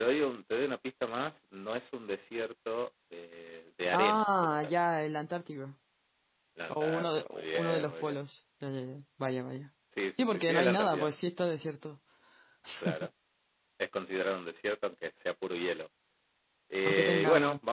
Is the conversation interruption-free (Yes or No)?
No